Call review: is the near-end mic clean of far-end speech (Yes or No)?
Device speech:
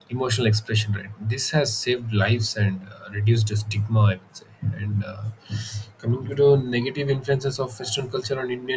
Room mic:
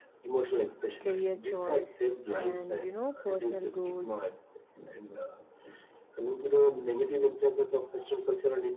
No